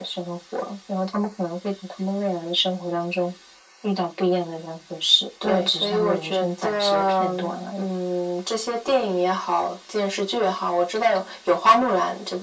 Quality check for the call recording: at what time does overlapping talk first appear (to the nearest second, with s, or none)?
5 s